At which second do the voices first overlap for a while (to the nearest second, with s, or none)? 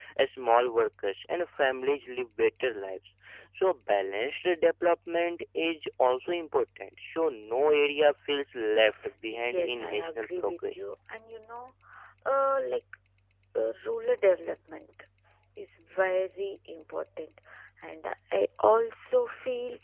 9 s